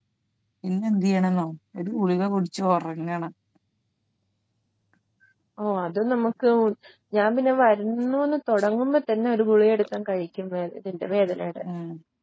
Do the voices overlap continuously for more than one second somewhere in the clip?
No

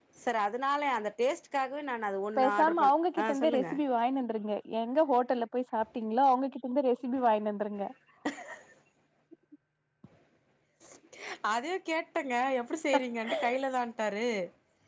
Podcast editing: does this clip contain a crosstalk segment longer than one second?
Yes, from 2.4 s

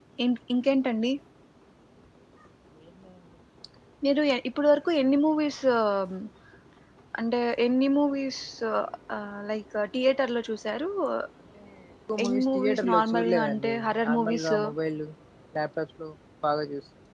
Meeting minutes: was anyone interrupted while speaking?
Yes, from 12.2 s

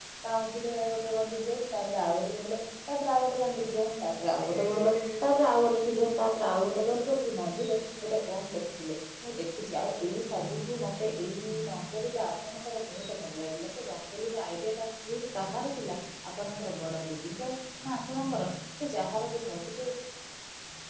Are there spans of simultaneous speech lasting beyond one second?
No

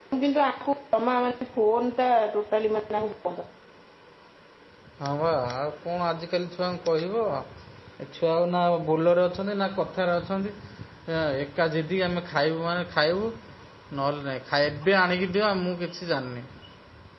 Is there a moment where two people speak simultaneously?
No

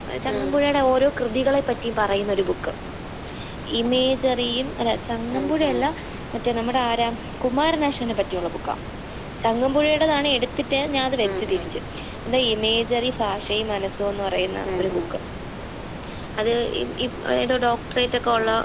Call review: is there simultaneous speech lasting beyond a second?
No

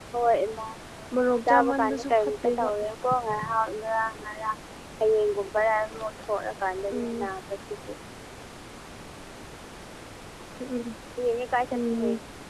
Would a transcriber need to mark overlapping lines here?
Yes, from 1.5 s

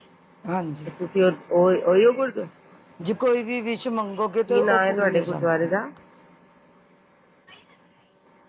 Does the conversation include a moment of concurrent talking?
Yes, from 4.5 s

